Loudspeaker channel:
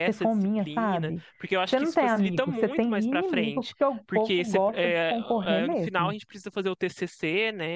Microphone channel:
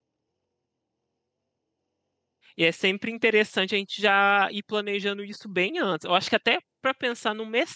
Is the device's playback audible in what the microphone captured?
No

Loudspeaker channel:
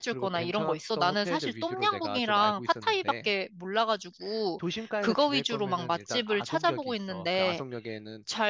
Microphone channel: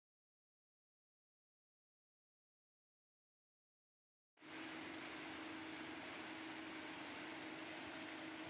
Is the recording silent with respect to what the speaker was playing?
Yes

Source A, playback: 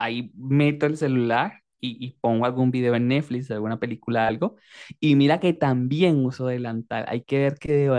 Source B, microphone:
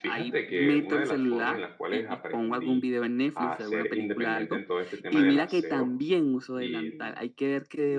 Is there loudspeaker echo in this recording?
Yes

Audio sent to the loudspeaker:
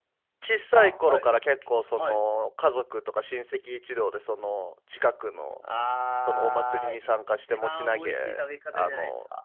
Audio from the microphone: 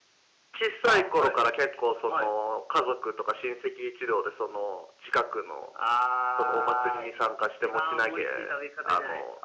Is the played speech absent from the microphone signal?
No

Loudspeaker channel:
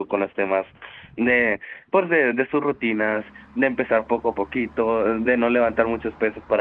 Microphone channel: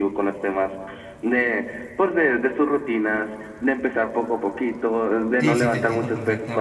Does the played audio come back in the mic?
Yes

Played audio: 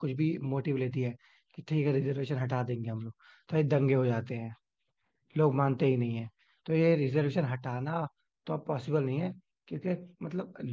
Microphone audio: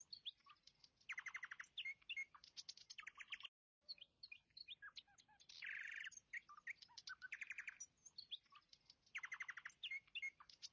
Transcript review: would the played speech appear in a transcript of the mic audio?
No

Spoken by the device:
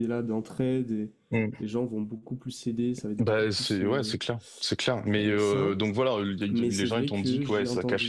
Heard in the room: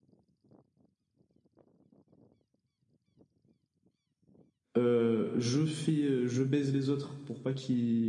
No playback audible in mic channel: Yes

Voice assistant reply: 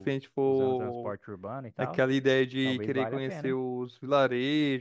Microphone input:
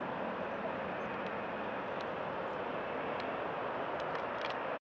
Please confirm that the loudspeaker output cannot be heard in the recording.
Yes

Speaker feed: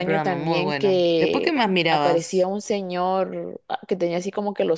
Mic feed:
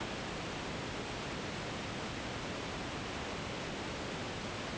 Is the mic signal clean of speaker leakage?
Yes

